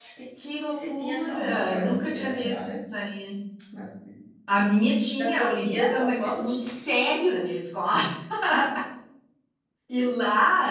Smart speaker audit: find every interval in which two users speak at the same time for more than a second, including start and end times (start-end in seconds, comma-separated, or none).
0.7-2.8, 5.2-6.6